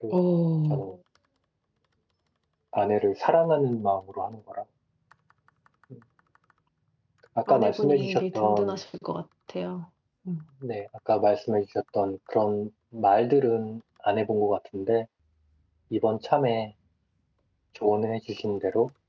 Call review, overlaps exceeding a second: present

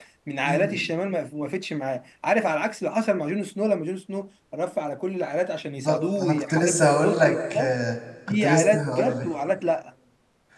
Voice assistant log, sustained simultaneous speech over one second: present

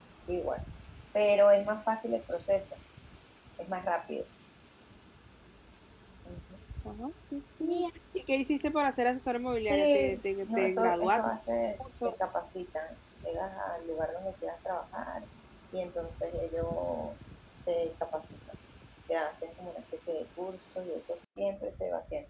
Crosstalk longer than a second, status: present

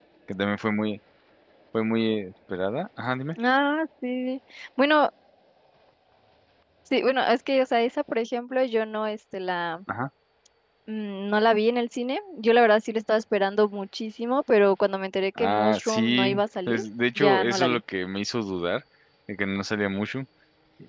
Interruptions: present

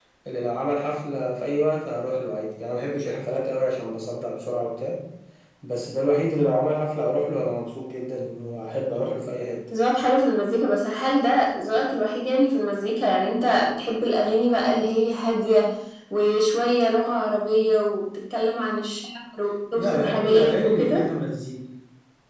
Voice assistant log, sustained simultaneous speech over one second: present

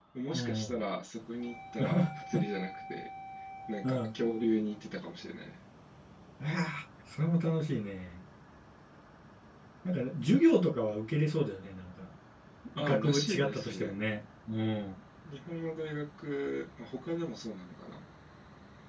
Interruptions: present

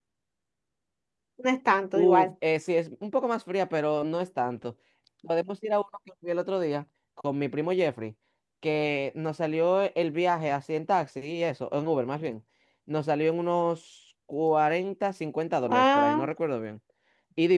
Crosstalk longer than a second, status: none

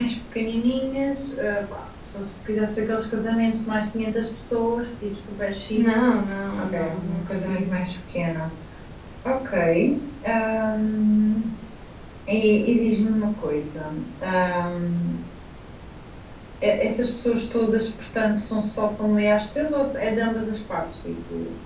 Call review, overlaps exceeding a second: present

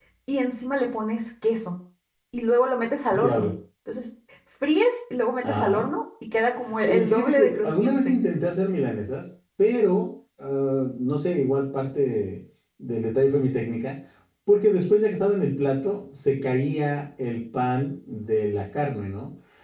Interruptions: present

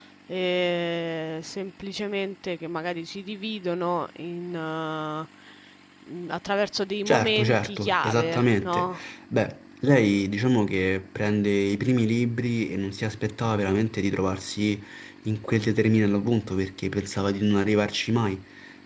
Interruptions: present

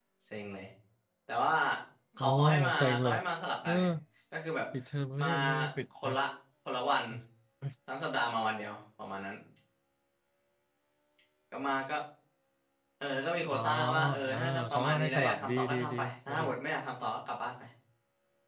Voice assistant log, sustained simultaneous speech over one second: present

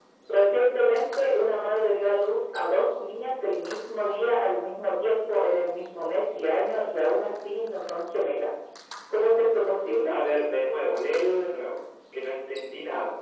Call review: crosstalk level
none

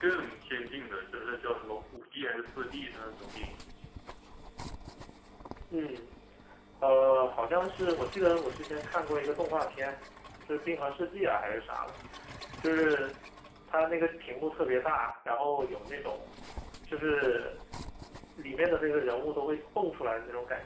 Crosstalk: none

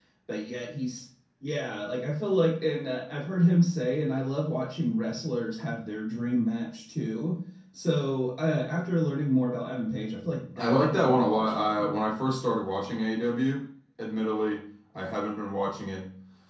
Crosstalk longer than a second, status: present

